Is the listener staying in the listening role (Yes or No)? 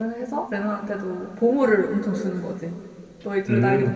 No